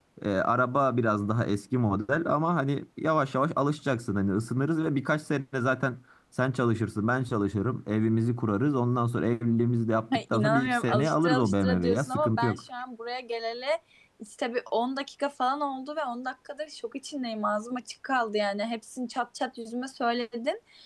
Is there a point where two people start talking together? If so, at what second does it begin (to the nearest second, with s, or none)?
10 s